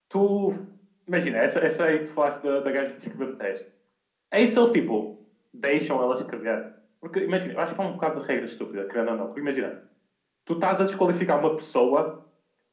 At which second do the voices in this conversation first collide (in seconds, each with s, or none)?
none